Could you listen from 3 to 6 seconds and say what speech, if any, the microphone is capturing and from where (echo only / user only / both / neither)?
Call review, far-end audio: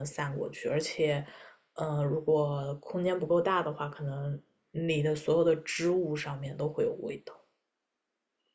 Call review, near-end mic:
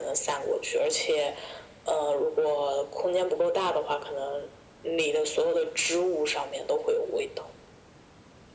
echo only